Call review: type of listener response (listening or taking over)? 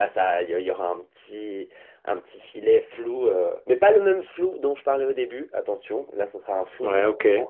listening